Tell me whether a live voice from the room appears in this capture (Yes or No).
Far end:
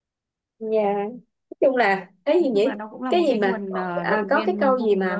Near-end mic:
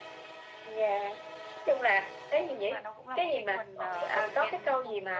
No